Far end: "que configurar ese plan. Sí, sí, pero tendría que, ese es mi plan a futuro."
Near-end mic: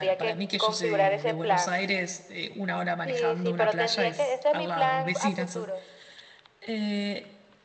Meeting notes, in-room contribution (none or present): present